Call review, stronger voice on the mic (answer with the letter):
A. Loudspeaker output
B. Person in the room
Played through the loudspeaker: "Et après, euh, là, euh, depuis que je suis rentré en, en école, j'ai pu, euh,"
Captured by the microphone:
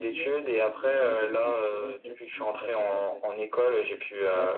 A